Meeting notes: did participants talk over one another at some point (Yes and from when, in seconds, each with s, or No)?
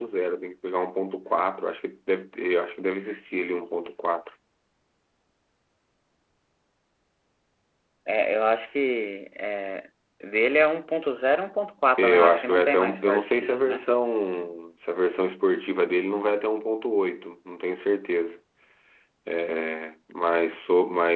Yes, from 12.0 s